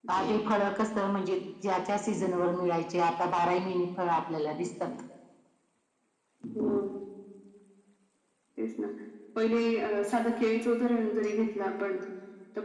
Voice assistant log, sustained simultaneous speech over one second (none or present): none